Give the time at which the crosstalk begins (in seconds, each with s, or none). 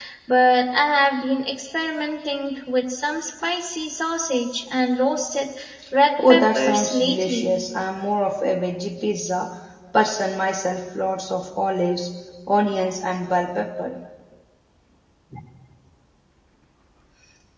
6.3 s